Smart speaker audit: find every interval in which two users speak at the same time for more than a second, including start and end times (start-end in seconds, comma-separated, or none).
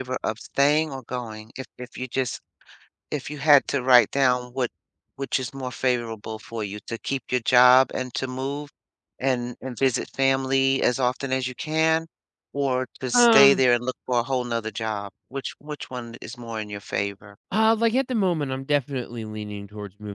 none